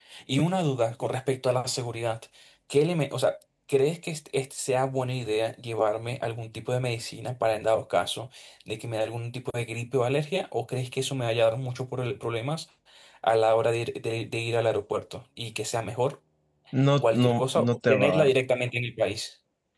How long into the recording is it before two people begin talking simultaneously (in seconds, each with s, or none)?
17.0 s